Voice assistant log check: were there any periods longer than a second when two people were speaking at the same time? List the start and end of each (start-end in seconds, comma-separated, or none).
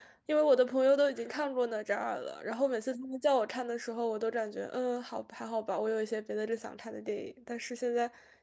none